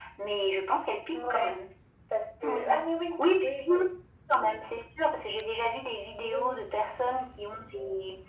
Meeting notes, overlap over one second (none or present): none